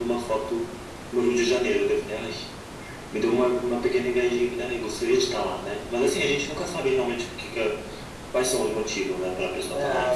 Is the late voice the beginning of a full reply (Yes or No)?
Yes